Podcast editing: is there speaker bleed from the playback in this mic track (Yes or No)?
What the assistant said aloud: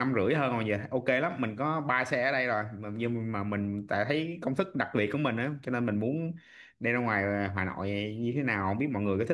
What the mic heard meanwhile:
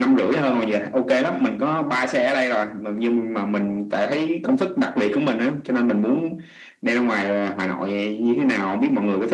Yes